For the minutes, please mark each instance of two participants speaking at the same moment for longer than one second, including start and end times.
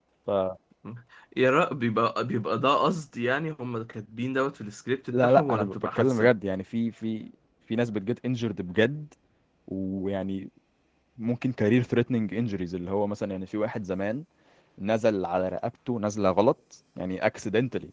5.1-6.3

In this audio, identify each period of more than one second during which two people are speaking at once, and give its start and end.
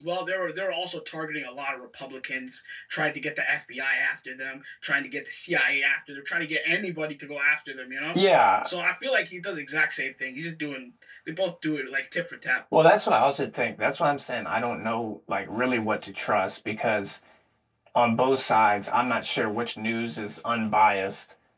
none

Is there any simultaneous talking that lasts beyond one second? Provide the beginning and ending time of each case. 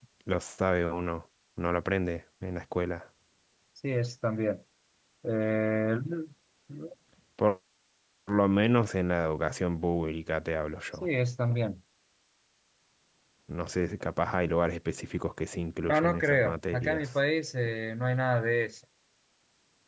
15.9-17.1

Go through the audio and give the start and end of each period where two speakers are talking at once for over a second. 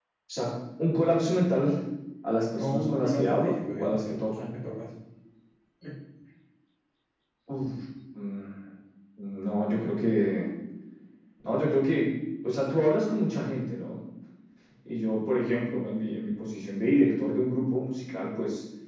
2.6-4.4

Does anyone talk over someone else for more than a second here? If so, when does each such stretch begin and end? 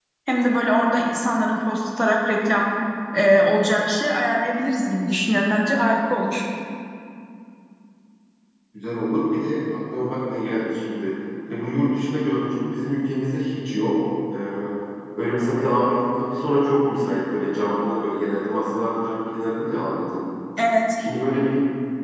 none

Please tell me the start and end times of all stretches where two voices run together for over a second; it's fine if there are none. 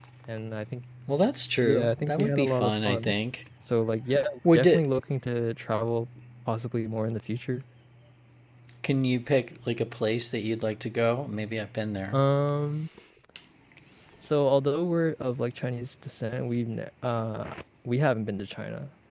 1.6-3.1

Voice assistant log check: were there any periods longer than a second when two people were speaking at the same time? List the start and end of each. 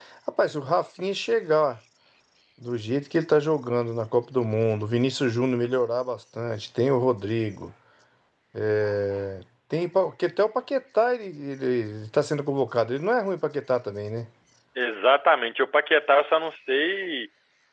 none

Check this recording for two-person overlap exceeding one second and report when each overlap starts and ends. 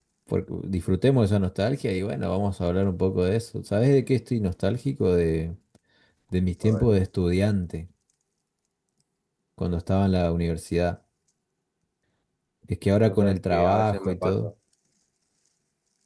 13.1-14.5

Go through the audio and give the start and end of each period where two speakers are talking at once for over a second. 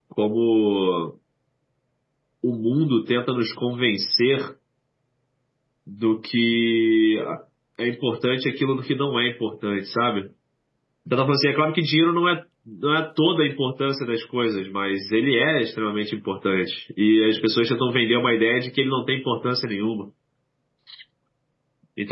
none

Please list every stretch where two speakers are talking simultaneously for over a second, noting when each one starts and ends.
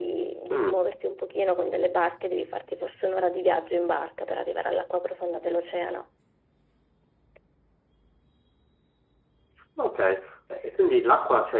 none

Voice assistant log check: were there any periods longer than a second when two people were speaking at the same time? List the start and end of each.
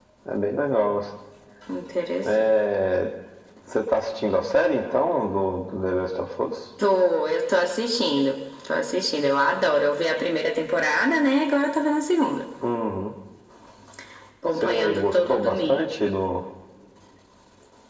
14.5-15.8

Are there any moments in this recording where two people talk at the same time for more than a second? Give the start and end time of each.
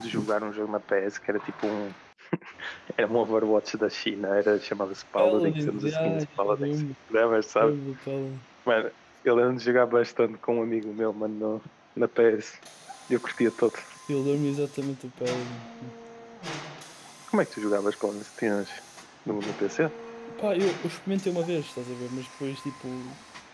5.2-6.7

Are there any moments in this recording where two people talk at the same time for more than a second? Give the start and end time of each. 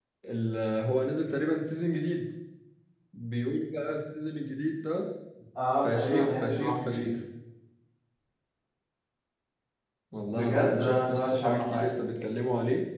5.8-7.1, 10.3-11.9

